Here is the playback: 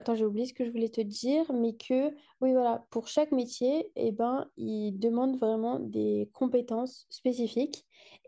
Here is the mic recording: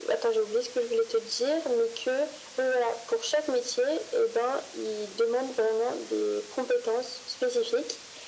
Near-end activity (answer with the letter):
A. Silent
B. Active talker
A